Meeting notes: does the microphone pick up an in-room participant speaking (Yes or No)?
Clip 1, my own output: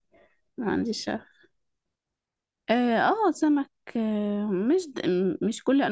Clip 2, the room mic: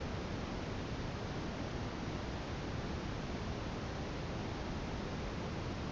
No